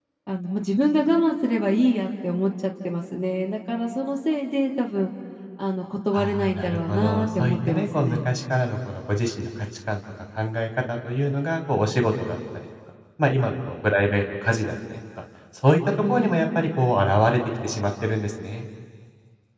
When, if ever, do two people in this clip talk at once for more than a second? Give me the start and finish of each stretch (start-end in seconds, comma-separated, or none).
6.1-8.2